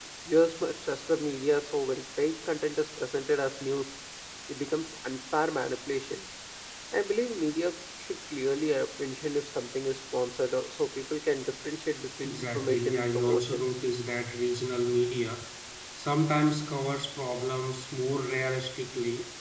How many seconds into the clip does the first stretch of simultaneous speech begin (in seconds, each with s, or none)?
12.2 s